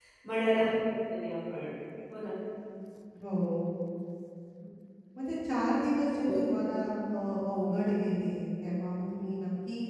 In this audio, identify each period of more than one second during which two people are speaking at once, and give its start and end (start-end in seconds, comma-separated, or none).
none